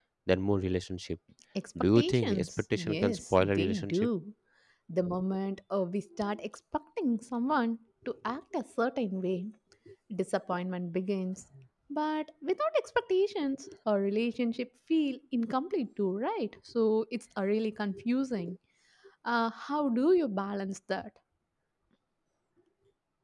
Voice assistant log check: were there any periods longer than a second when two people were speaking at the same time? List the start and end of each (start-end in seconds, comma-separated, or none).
2.0-4.1